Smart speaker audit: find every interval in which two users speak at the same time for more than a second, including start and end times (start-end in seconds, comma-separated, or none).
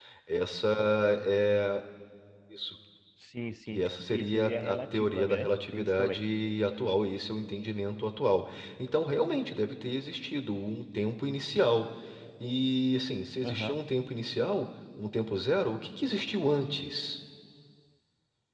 3.7-6.2